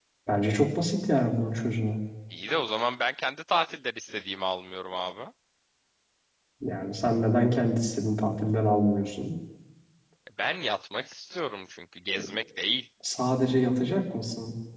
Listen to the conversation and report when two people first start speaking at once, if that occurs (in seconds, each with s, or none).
none